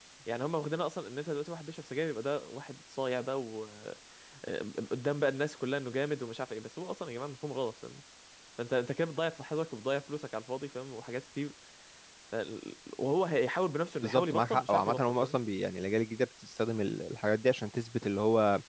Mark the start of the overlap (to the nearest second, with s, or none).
14 s